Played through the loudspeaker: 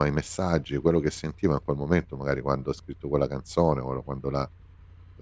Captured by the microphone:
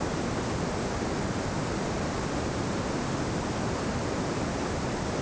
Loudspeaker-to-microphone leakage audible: No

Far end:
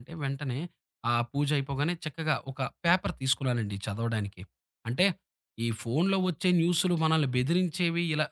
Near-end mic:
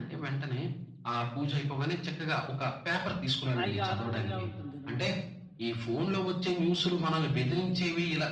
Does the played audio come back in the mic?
Yes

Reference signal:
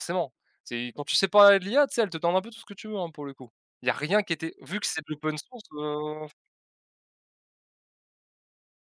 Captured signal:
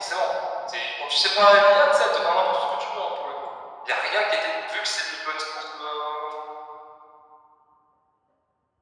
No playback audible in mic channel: No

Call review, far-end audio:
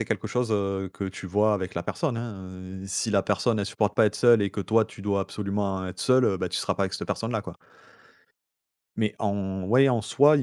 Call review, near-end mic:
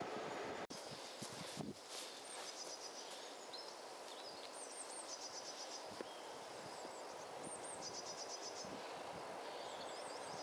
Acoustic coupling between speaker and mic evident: No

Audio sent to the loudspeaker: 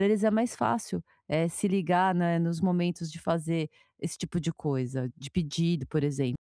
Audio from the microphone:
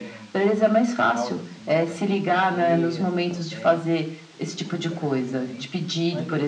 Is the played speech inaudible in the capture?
No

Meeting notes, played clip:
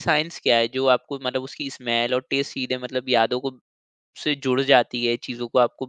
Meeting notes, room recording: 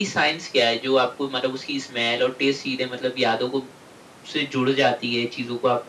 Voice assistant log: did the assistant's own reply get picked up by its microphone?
Yes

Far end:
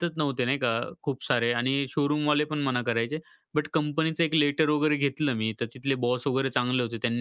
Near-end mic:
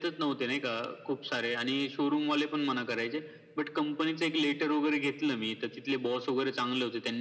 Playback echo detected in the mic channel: Yes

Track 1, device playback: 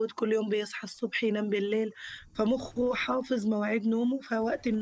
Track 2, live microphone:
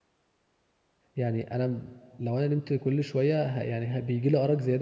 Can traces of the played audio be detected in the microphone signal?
No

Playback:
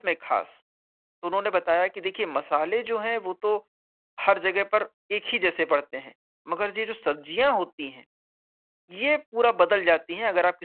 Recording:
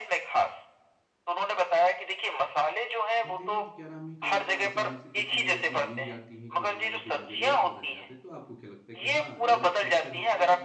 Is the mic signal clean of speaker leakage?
No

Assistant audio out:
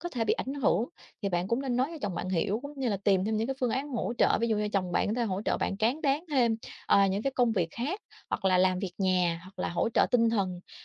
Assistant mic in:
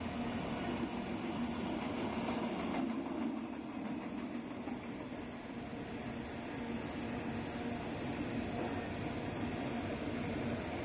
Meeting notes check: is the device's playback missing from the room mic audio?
Yes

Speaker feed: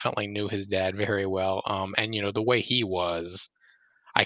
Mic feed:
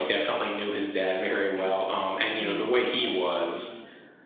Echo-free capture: No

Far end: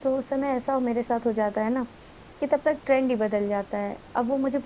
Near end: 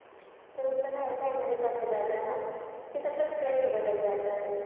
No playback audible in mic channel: No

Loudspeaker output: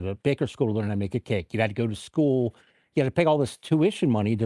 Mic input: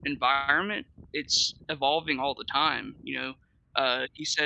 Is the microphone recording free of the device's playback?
Yes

